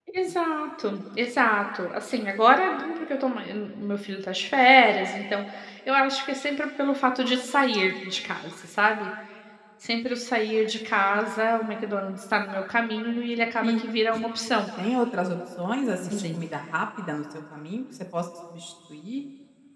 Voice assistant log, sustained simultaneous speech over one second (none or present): none